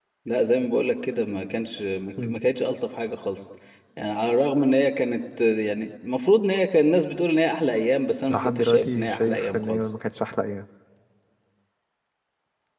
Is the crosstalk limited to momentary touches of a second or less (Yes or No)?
No